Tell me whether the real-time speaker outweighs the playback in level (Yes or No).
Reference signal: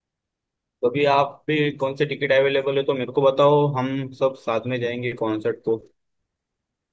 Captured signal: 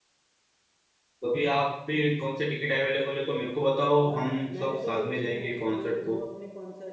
No